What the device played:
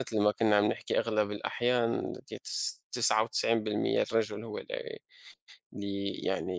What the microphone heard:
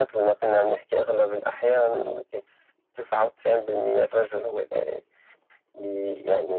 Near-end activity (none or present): none